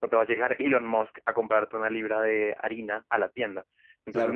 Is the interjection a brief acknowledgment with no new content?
Yes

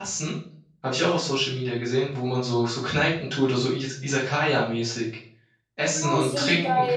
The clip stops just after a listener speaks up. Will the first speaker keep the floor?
No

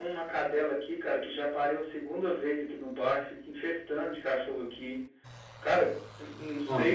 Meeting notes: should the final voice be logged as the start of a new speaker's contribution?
No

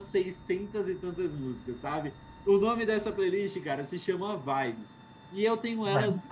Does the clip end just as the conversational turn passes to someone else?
No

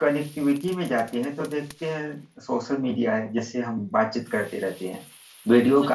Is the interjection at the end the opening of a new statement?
No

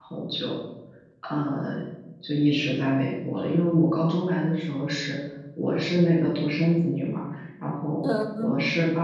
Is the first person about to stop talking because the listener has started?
No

